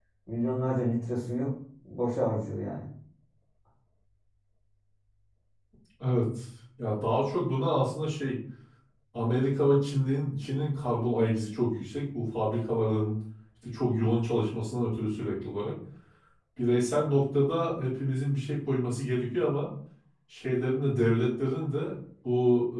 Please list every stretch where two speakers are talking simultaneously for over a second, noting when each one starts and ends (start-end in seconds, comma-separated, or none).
none